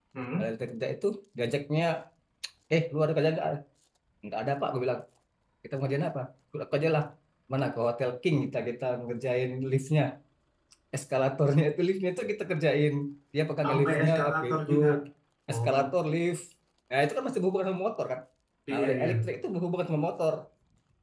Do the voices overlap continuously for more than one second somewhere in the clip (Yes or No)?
Yes